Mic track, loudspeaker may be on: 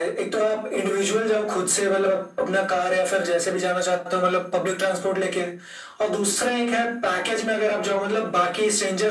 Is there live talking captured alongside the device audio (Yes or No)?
No